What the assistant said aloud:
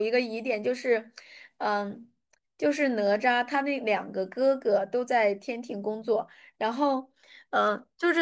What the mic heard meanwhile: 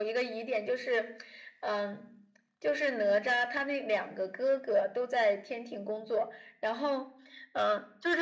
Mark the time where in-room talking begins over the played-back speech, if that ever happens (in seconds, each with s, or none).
none